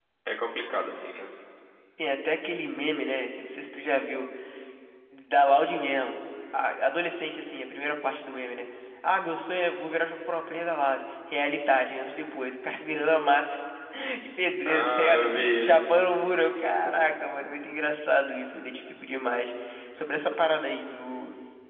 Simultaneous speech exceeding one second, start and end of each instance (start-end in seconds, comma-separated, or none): 14.7-15.9